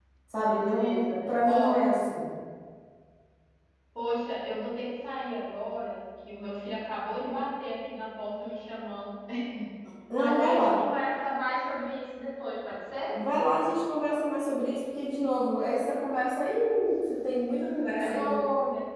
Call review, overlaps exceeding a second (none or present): present